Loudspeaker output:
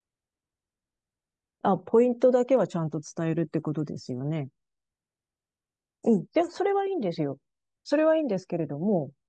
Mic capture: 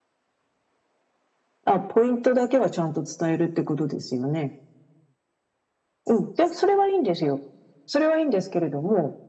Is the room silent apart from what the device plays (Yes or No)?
Yes